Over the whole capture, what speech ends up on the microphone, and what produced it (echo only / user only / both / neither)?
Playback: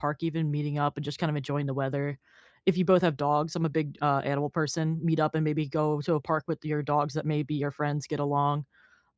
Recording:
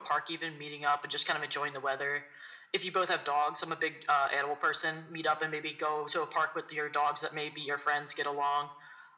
echo only